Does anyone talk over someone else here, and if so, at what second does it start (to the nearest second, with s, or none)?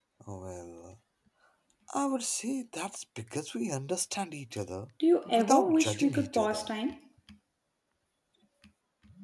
5 s